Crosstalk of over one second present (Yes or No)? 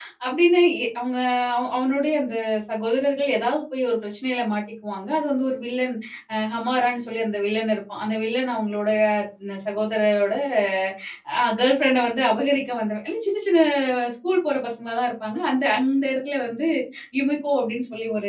No